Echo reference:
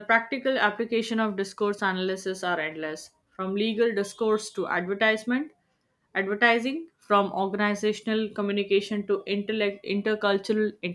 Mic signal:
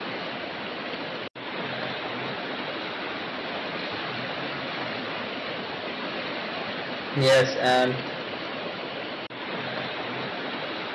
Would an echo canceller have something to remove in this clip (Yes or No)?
No